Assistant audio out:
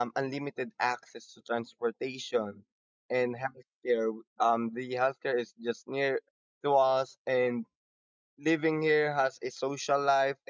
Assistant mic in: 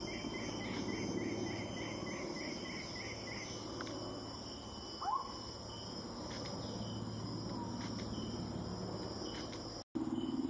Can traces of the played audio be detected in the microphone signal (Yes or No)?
No